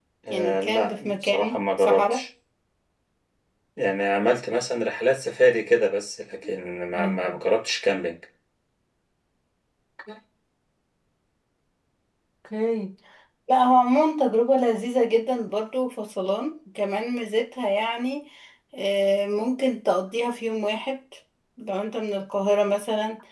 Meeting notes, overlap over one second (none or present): present